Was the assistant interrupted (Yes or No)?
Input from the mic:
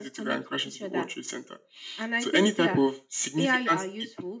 No